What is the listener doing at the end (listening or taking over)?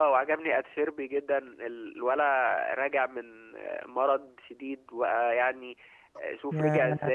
listening